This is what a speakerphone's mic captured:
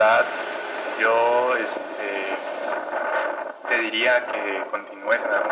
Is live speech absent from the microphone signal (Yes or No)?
Yes